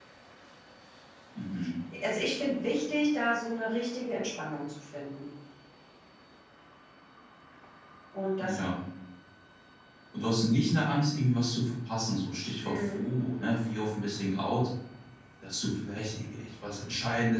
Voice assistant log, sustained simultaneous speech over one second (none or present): none